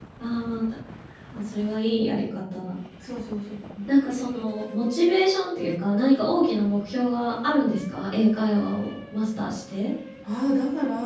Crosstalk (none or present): none